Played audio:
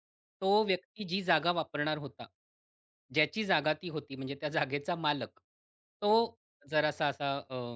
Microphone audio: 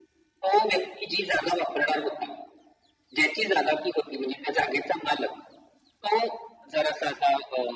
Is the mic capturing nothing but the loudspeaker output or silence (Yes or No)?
Yes